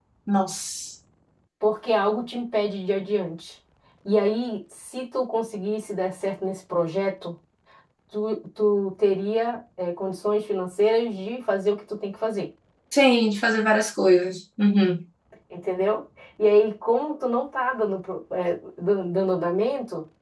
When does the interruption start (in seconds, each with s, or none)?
none